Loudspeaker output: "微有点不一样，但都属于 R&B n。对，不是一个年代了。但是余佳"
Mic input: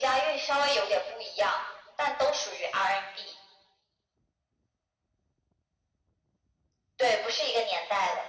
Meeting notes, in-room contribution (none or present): none